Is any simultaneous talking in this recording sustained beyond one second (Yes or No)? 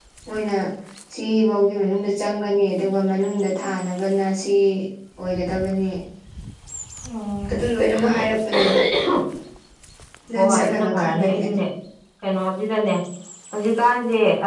Yes